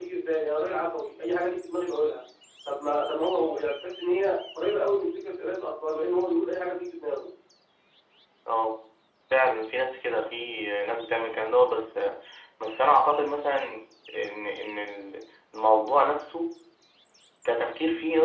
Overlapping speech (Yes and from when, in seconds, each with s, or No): No